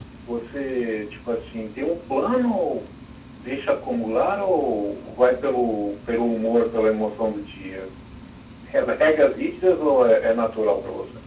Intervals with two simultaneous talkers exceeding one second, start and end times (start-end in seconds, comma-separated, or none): none